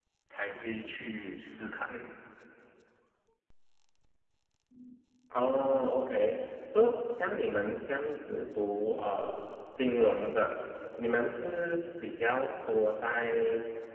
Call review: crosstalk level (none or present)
none